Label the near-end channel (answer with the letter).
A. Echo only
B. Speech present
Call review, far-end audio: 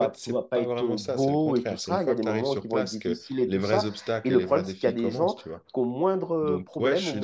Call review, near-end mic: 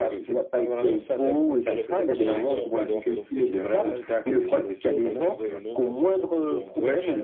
B